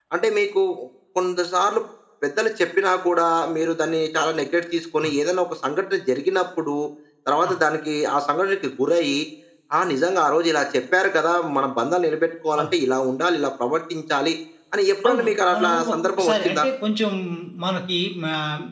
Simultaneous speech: Yes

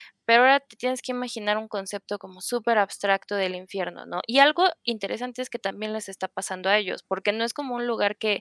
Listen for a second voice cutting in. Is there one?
No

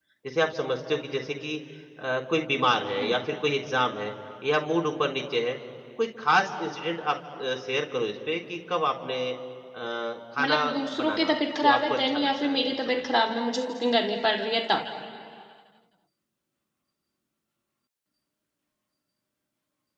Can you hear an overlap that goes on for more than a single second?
Yes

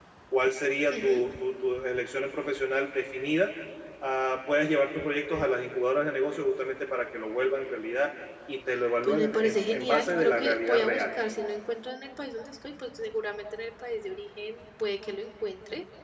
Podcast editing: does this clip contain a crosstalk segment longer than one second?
Yes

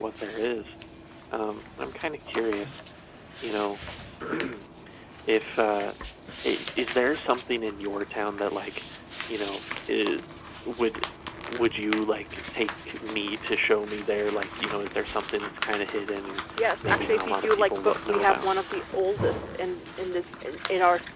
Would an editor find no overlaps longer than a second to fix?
No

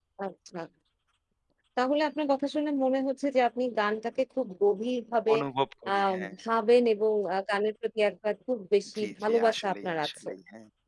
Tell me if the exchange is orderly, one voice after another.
No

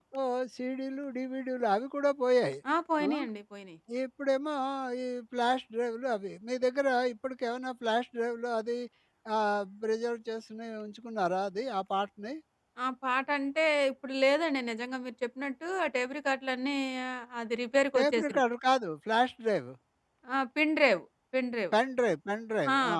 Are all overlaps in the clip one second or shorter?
Yes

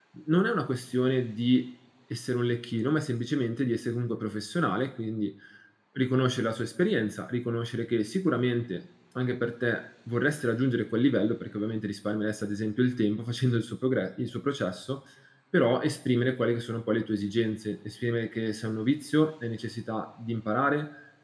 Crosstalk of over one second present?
No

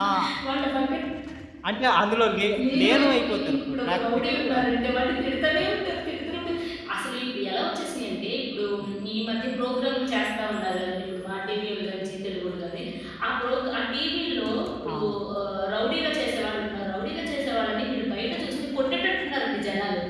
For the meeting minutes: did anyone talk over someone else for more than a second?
Yes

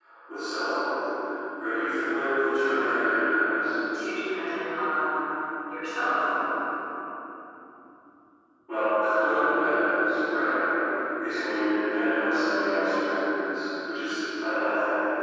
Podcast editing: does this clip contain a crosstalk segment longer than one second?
No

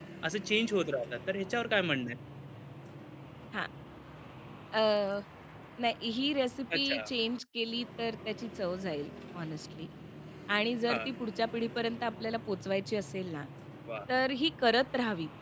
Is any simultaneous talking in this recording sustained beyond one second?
No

